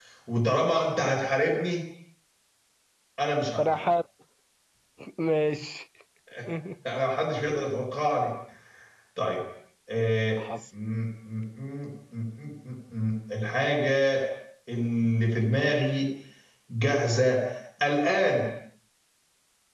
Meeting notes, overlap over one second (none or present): none